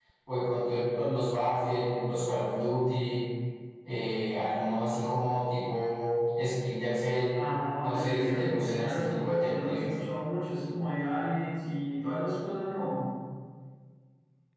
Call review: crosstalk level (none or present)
present